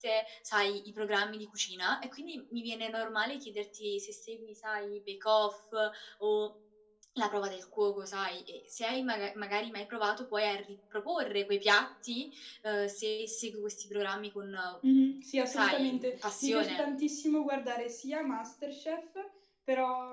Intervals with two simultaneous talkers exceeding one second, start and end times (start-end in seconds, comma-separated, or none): 15.5-16.8